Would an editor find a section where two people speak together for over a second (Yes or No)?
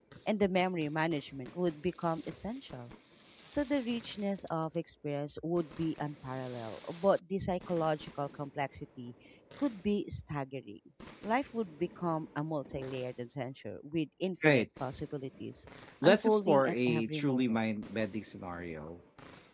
Yes